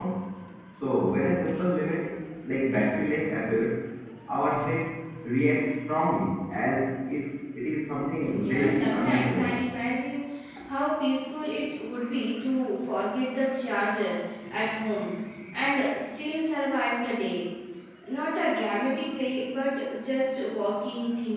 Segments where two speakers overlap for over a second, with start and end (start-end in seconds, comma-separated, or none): 8.3-9.5